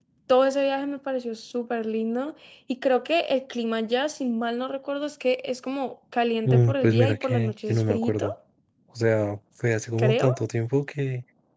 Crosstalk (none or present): present